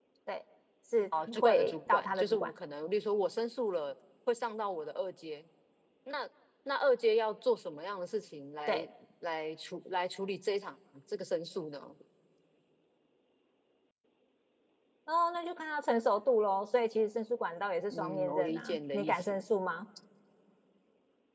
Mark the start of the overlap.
1.3 s

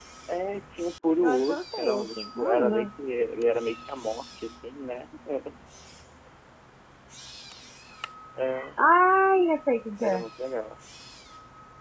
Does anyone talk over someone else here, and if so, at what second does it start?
1.2 s

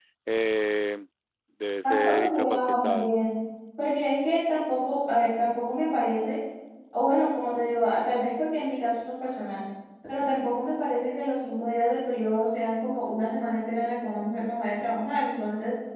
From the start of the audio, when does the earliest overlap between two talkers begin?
1.8 s

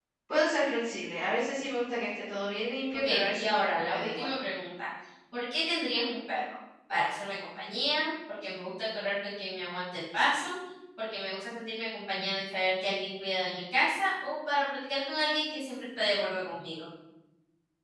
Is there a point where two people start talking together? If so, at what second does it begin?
2.9 s

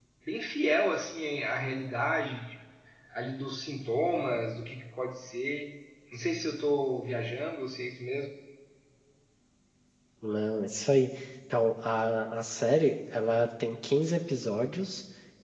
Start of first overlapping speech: none

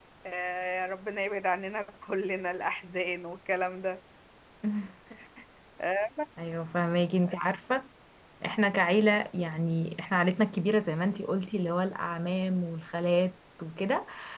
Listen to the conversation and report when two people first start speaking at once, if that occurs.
none

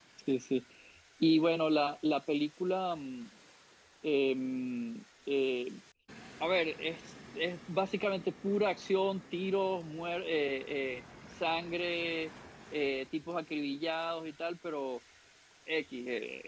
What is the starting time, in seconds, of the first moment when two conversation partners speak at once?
none

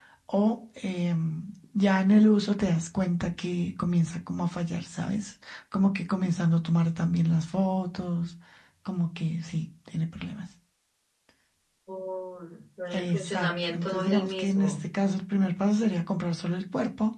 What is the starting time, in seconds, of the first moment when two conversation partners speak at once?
12.9 s

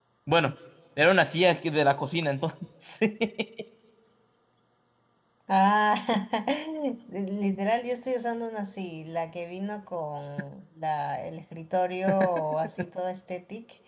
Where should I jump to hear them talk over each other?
none

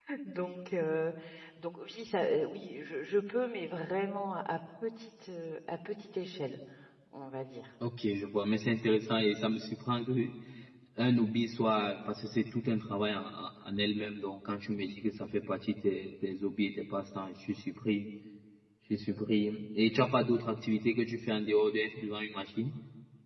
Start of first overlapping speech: none

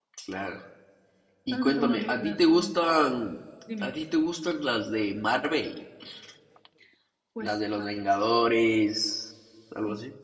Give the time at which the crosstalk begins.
1.5 s

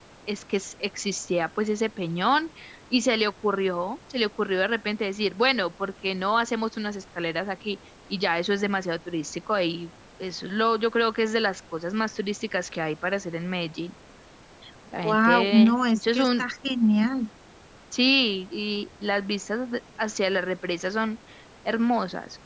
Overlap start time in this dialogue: 15.0 s

